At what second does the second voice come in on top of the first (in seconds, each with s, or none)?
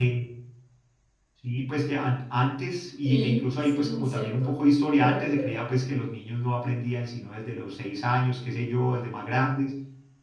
3.0 s